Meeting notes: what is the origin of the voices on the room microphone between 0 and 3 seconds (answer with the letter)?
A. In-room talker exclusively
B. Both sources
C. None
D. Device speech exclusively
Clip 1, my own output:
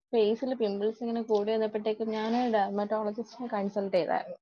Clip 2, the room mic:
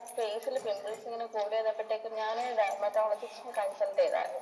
D